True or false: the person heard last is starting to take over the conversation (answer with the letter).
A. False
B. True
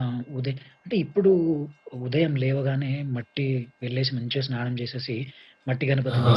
A